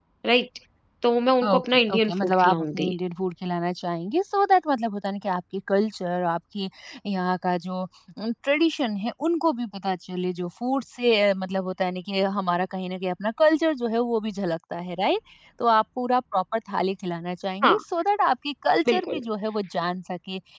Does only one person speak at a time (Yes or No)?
No